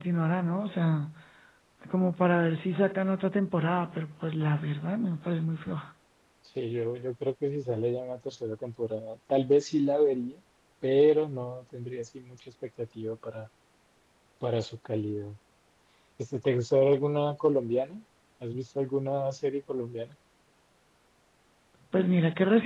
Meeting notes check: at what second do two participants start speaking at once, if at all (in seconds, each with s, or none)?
none